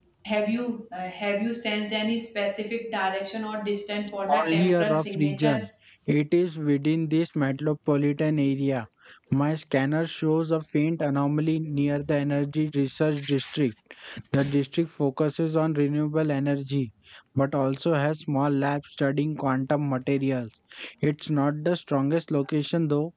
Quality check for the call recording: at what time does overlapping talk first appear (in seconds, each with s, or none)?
4.3 s